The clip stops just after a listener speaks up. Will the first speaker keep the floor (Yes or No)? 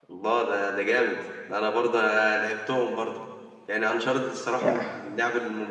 Yes